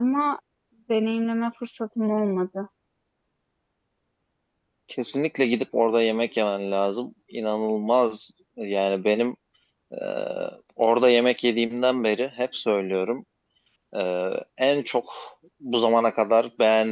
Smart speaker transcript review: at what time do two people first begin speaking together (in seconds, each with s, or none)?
none